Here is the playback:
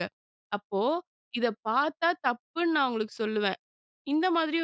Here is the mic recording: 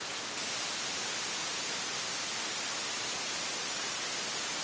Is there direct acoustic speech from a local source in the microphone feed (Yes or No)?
No